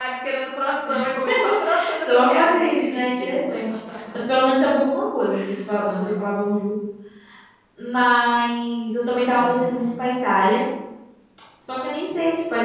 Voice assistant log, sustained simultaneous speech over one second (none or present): present